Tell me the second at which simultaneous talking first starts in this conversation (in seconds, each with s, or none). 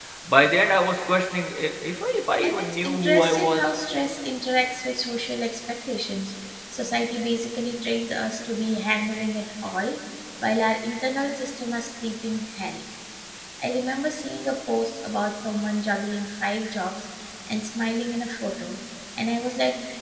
2.4 s